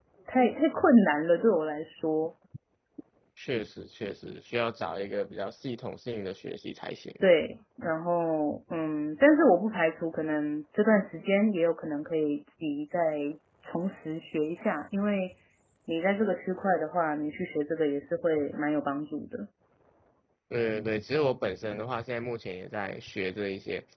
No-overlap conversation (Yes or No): Yes